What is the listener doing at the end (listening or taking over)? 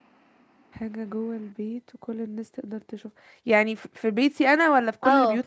taking over